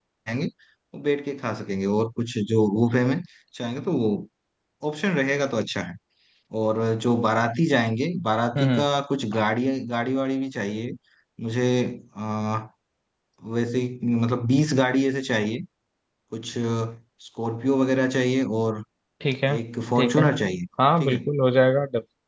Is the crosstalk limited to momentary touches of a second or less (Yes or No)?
Yes